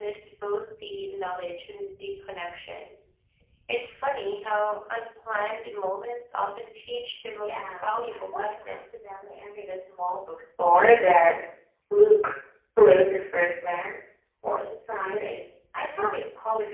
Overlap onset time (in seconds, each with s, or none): 7.4 s